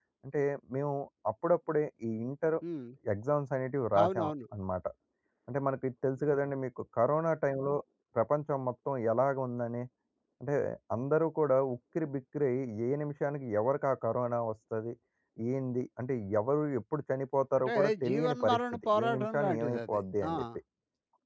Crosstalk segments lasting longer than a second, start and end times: 17.6-20.4

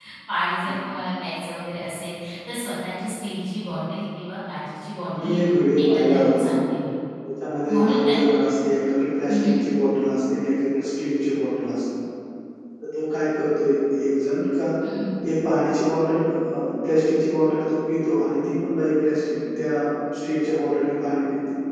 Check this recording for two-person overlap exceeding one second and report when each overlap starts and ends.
5.2-6.5

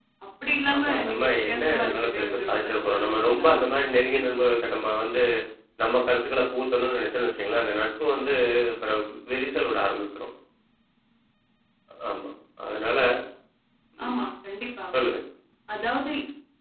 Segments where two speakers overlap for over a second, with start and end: 0.8-3.6

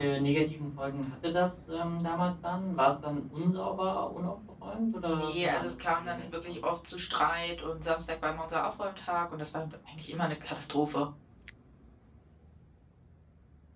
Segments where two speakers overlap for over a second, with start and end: 5.0-6.6

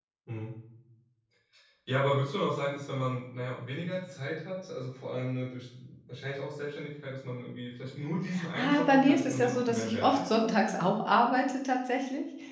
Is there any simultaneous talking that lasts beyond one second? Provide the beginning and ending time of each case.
8.6-10.8

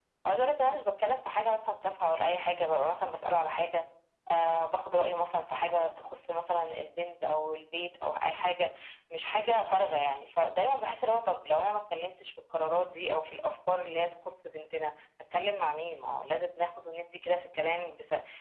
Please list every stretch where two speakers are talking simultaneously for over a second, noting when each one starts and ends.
none

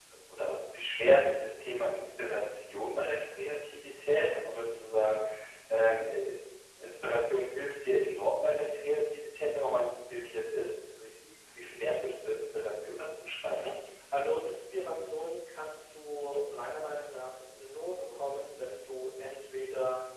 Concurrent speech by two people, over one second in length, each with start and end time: none

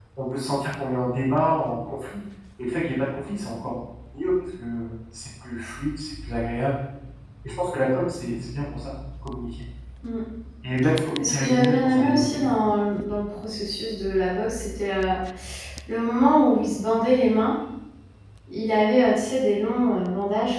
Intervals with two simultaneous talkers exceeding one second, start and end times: 11.2-12.4

